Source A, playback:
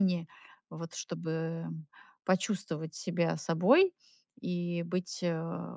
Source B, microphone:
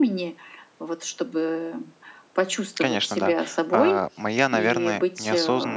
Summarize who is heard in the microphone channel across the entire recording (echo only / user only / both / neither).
both